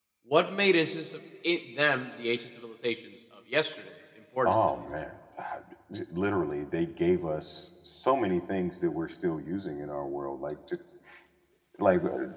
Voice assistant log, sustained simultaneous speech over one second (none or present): none